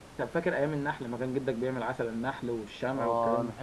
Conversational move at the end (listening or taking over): taking over